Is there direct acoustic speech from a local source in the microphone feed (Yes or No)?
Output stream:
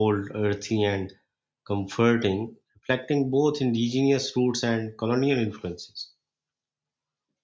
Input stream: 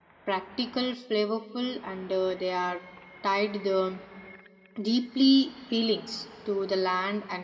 Yes